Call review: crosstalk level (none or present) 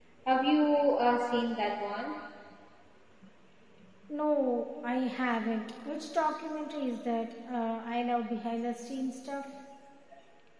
none